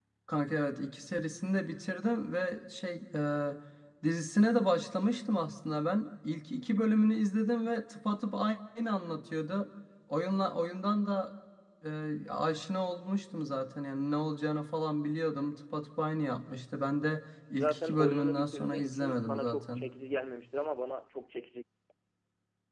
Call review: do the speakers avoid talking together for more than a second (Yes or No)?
No